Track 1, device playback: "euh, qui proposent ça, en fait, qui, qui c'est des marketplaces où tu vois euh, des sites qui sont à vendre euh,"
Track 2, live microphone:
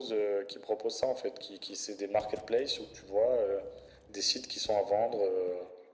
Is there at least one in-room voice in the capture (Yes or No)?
No